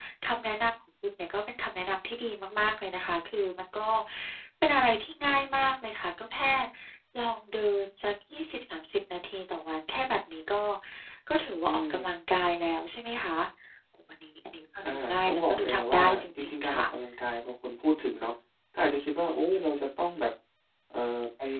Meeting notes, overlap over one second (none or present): present